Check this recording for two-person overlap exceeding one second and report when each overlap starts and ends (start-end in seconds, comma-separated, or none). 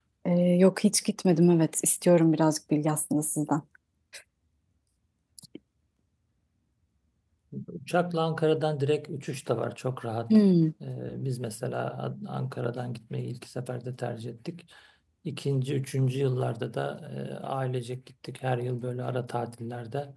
none